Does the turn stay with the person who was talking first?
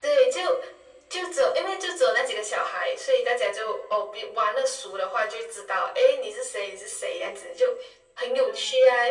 Yes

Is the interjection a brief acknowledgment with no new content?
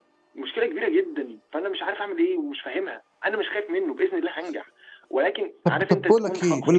No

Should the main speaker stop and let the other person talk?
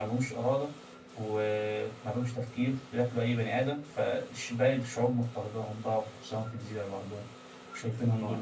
No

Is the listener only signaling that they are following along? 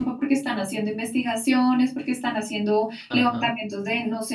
Yes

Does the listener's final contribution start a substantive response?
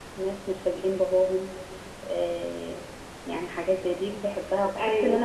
No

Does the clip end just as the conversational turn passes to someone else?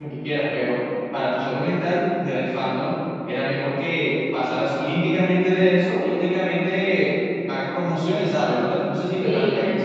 Yes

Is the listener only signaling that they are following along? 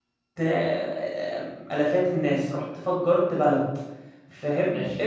Yes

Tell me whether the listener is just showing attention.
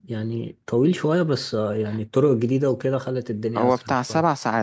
No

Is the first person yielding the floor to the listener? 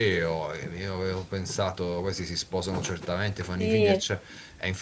No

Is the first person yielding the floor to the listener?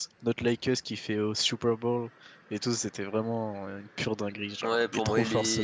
Yes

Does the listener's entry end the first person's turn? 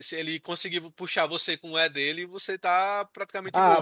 Yes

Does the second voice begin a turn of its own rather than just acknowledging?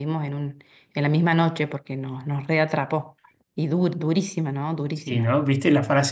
Yes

